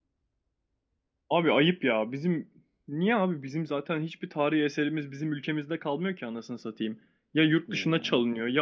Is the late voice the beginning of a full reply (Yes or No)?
No